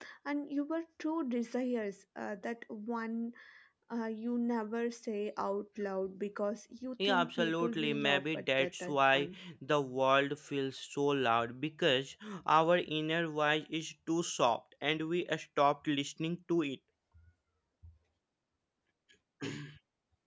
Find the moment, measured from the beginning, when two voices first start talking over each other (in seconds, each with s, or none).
7.0 s